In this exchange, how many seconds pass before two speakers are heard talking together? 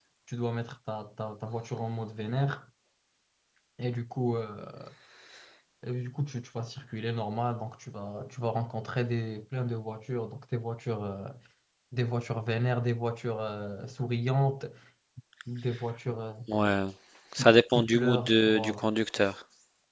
17.4 s

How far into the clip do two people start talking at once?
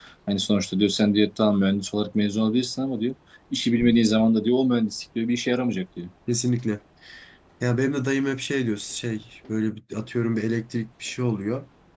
none

